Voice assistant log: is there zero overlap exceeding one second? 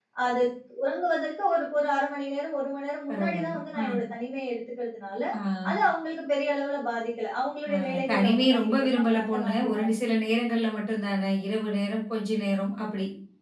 No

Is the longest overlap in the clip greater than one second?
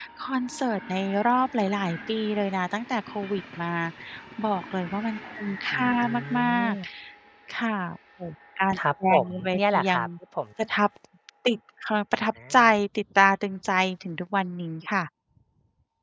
Yes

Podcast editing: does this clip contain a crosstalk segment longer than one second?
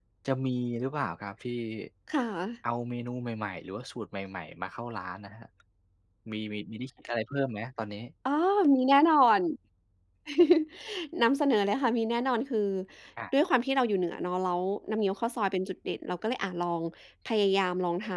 No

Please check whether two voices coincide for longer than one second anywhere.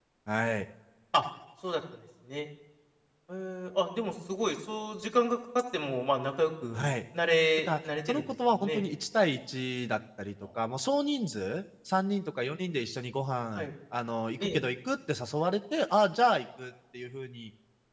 Yes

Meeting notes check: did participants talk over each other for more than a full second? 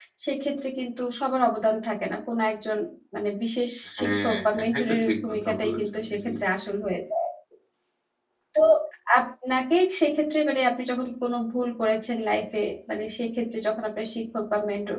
Yes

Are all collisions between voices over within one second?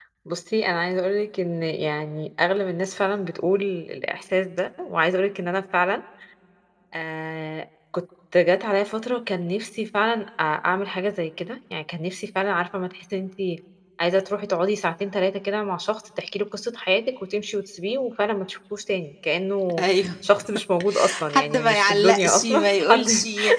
No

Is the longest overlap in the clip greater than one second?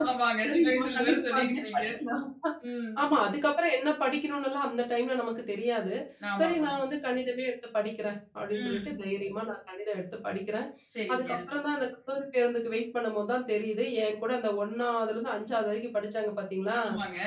Yes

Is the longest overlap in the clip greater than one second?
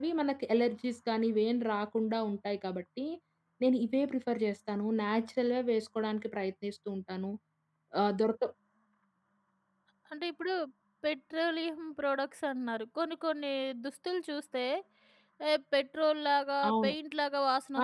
No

